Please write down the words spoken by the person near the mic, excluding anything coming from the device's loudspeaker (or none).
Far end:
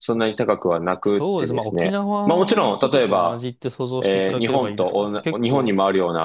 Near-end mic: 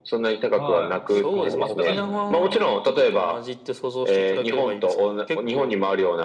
はい。結構あったかいんじゃないですか。